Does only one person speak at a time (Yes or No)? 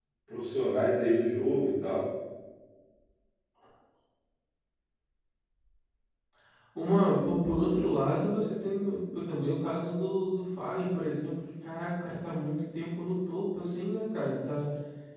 Yes